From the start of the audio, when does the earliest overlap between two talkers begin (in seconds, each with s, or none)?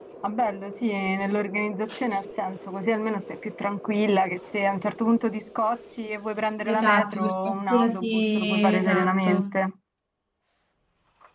6.6 s